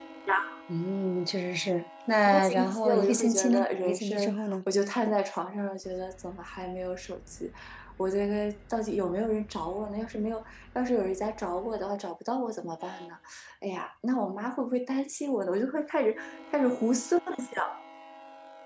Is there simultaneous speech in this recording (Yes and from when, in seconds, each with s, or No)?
Yes, from 2.3 s